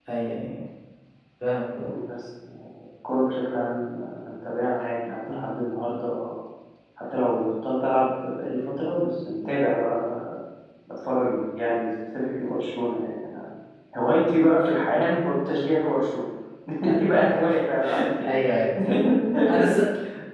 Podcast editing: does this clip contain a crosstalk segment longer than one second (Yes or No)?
No